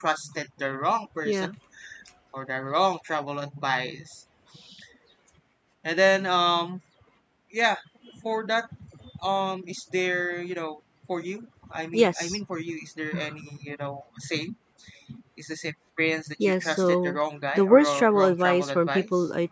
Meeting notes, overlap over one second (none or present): present